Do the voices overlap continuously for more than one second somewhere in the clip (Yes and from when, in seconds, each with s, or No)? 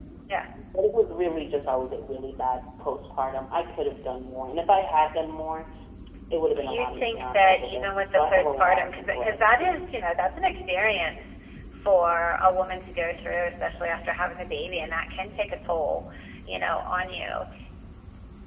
Yes, from 6.6 s